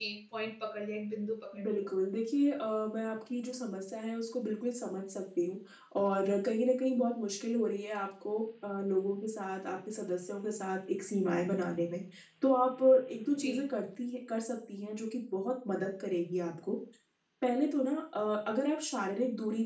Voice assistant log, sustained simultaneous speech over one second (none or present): none